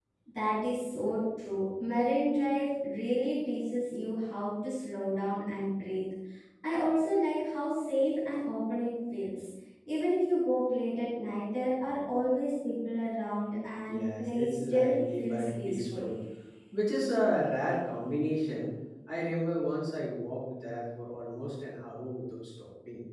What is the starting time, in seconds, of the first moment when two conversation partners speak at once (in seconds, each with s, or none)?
13.9 s